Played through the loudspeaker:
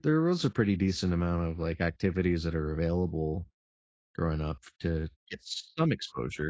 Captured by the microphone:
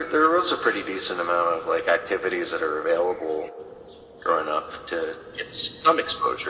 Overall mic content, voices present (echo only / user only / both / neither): echo only